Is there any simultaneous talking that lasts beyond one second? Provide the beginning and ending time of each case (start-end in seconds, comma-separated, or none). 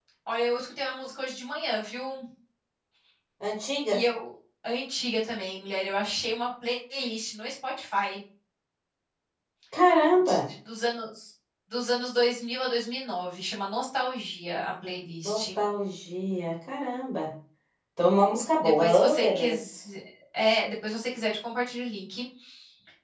18.6-19.8